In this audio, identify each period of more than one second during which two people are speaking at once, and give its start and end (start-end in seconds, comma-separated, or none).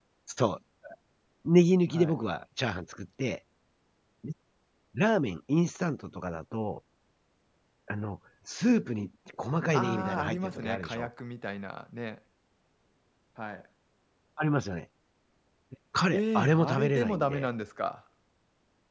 9.7-11.1, 16.1-17.5